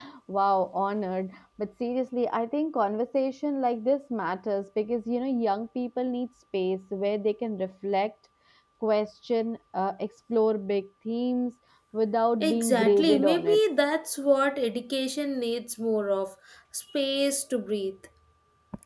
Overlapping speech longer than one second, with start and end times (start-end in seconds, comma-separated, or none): 12.4-13.6